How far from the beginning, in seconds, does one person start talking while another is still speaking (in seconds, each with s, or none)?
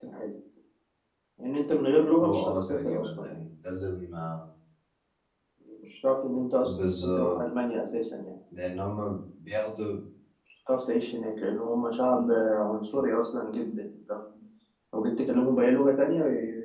2.2 s